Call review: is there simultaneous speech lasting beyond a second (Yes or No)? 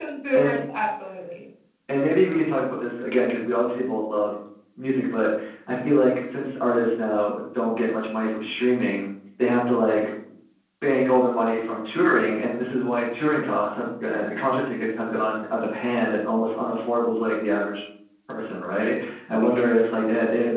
No